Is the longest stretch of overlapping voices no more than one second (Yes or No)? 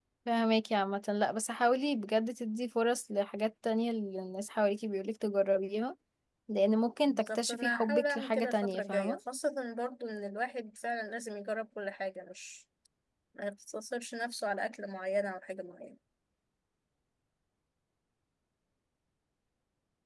No